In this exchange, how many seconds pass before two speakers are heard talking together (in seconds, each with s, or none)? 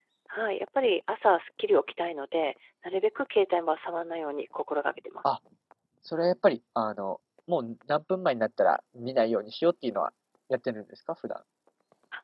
none